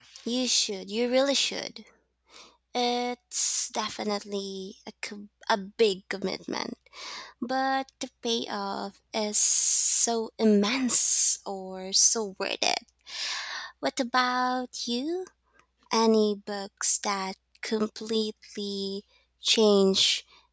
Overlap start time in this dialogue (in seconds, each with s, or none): none